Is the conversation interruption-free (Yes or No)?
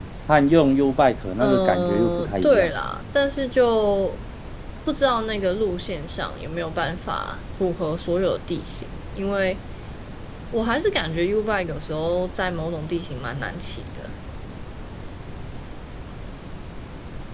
No